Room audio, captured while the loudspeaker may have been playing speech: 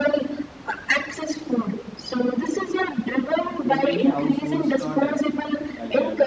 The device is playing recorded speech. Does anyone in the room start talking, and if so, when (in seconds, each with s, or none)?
3.6 s